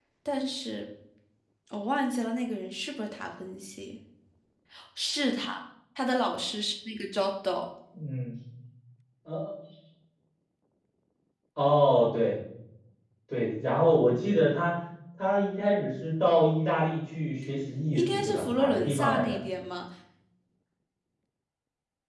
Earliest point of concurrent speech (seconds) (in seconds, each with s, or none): 17.9 s